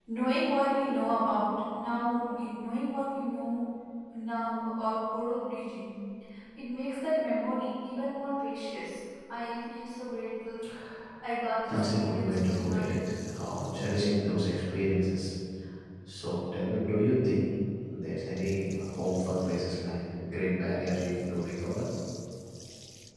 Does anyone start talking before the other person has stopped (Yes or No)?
Yes